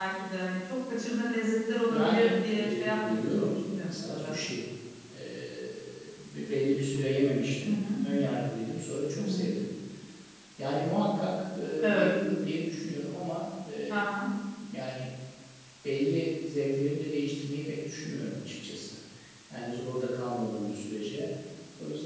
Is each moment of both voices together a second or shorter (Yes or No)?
No